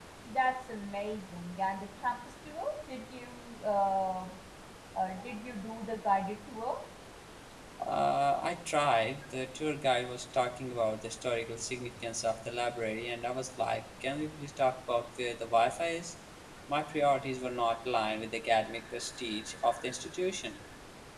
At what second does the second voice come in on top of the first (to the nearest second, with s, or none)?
none